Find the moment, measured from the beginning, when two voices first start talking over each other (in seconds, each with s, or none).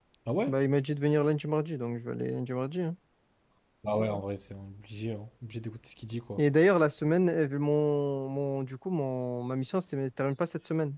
none